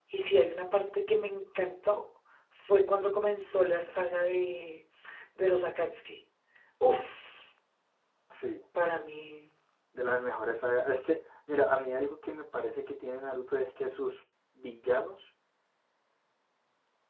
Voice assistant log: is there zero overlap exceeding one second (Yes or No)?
Yes